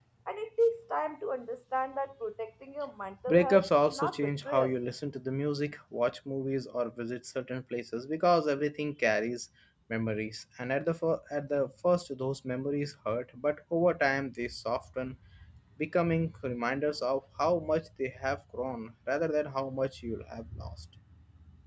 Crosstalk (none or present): present